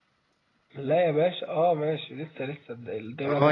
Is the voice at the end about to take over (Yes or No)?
Yes